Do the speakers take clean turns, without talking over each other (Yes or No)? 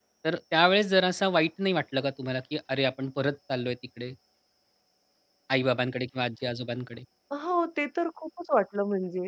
Yes